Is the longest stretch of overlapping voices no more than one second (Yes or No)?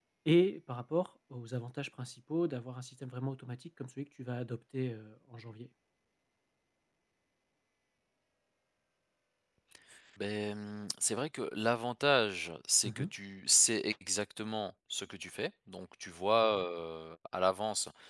Yes